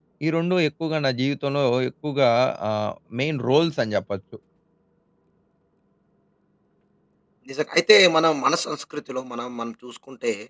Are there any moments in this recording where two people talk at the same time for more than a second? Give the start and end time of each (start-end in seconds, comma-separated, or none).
none